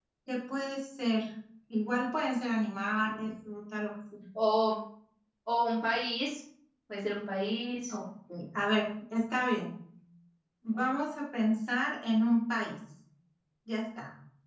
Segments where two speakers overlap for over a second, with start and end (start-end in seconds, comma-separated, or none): none